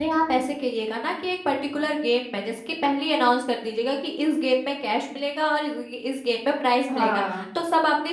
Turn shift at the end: No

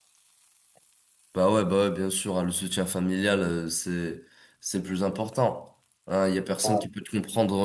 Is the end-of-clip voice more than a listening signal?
No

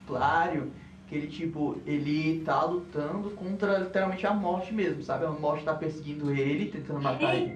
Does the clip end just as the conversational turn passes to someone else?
Yes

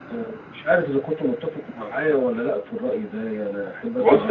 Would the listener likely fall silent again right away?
No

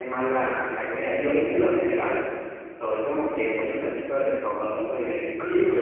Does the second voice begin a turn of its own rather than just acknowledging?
No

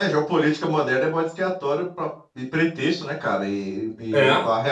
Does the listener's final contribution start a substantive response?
No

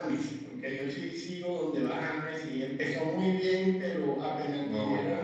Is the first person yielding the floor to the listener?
No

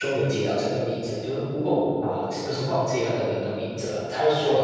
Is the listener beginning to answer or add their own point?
No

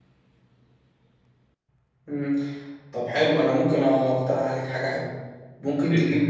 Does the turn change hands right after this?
No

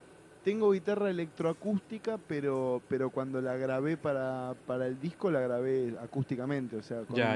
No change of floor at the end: No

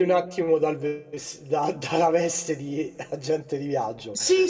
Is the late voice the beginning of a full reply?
Yes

